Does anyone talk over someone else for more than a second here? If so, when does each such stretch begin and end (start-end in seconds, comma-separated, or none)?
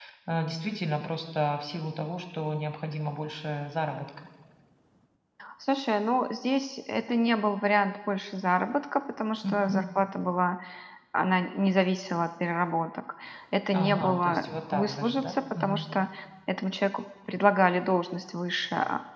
13.8-15.9